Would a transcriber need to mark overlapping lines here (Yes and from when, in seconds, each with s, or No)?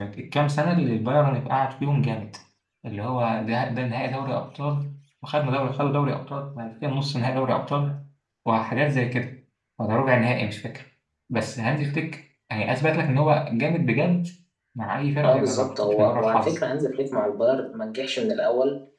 Yes, from 15.2 s